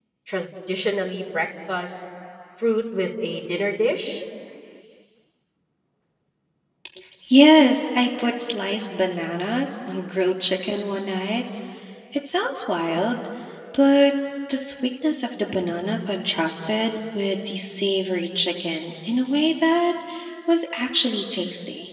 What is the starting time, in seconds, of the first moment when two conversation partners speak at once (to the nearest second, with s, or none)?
none